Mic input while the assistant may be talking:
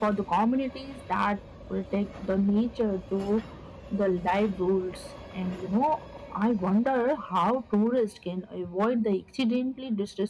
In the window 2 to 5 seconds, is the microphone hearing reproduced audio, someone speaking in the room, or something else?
echo only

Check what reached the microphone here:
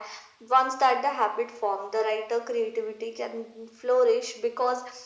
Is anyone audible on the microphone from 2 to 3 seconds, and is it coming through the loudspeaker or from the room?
echo only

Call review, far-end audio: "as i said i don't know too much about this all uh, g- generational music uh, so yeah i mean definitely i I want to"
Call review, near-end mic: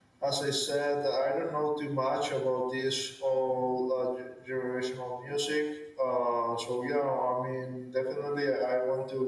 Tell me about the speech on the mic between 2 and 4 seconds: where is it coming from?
echo only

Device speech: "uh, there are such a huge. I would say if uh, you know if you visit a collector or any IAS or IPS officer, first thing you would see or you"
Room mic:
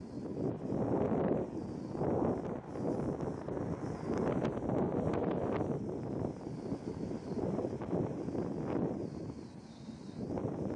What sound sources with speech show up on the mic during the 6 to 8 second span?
neither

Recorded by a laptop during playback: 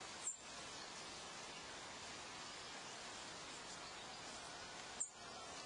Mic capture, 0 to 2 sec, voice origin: neither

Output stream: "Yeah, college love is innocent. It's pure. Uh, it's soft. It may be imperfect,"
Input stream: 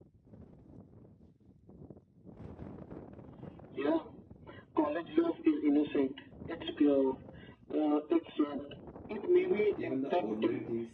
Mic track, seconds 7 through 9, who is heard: echo only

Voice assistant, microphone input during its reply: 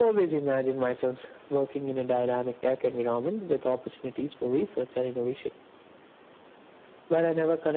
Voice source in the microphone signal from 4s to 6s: echo only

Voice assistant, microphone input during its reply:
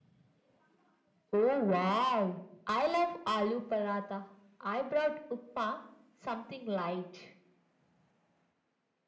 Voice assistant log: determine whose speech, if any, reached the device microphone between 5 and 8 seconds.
echo only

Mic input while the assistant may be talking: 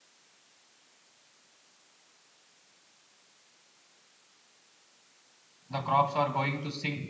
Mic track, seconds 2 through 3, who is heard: neither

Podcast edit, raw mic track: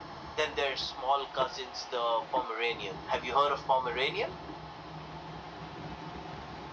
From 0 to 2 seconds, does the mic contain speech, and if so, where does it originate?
echo only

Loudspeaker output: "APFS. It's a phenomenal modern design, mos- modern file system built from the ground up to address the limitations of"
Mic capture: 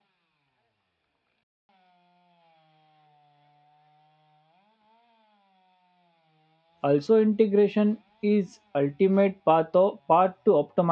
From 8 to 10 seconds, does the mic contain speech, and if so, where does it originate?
user only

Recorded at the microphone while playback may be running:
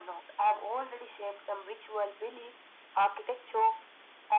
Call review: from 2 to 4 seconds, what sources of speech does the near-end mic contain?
echo only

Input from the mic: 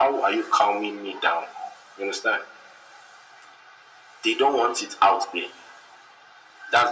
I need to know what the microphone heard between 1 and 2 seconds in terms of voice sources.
echo only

